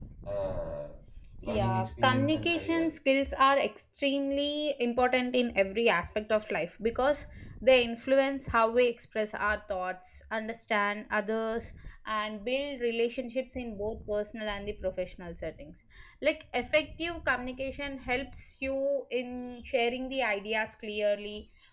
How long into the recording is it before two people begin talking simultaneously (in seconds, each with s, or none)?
1.4 s